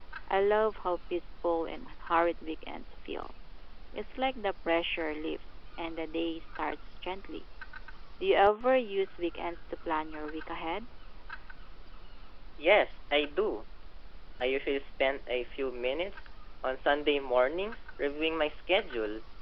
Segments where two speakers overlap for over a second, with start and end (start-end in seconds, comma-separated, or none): none